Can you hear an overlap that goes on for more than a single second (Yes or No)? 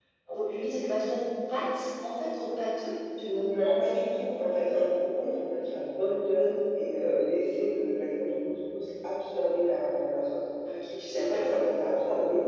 No